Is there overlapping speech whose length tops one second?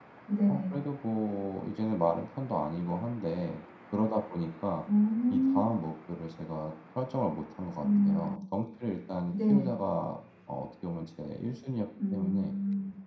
No

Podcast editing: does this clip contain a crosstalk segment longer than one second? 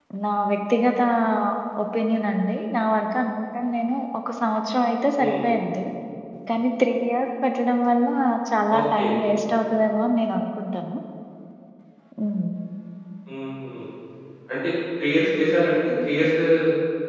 No

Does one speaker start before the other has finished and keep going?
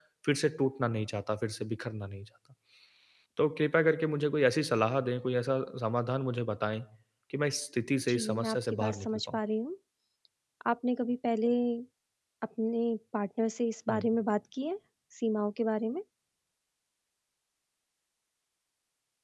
Yes, from 8.1 s

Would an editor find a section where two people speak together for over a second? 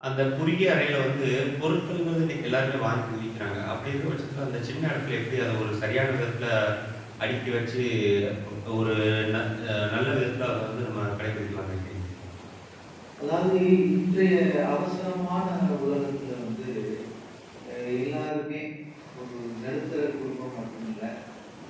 No

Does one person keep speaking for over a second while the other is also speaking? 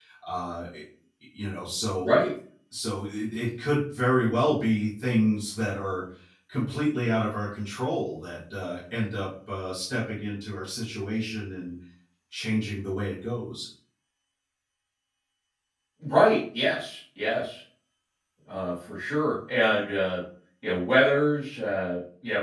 No

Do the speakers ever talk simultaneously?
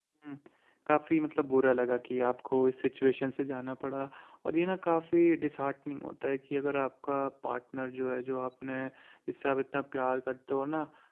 No

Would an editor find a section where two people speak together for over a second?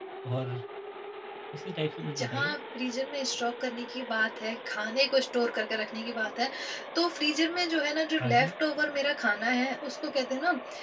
No

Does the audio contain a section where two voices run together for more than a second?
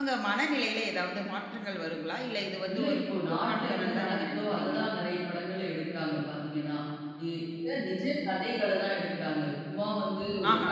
Yes, from 2.6 s

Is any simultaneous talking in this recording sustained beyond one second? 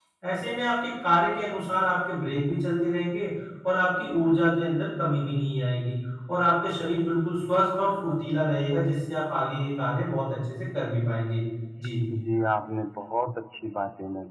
No

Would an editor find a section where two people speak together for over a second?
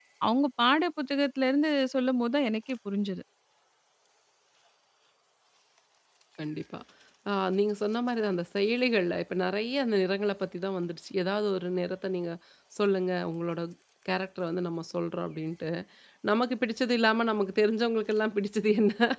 No

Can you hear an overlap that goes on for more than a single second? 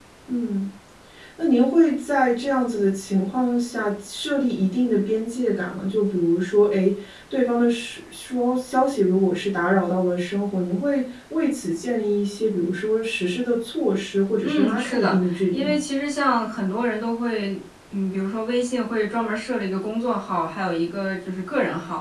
Yes, from 14.4 s

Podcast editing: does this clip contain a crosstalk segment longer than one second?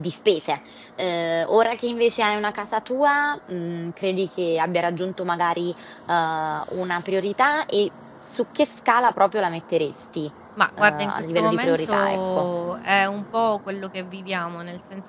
Yes, from 10.8 s

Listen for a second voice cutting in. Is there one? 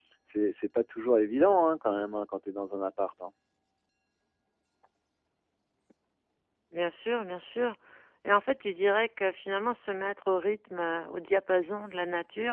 No

